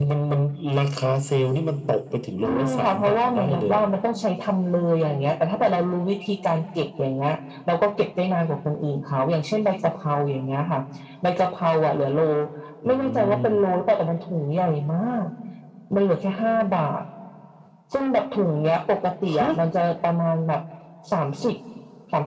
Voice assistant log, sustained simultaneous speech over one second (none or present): present